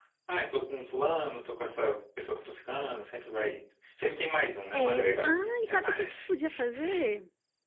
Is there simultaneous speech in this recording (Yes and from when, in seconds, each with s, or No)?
Yes, from 4.7 s